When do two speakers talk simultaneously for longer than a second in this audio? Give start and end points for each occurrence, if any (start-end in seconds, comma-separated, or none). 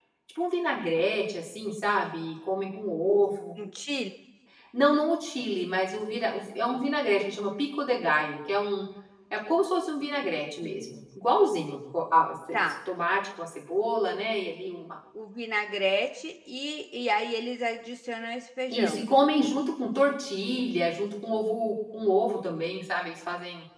none